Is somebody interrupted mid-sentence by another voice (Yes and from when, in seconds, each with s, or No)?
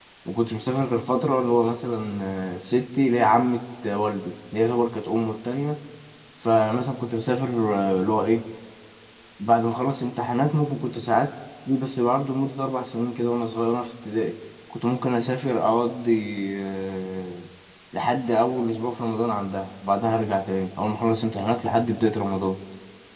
No